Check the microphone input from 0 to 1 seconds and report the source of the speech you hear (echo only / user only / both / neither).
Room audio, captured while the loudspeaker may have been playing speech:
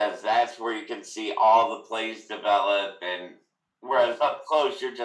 echo only